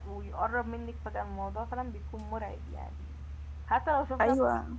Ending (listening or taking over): listening